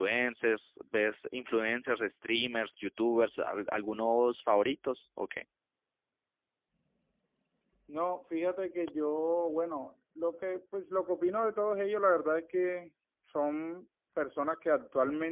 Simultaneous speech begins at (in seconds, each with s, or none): none